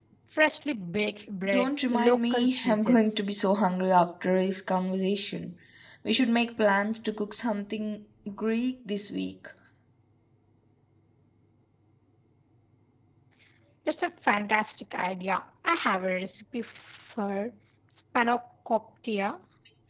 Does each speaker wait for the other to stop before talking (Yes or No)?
No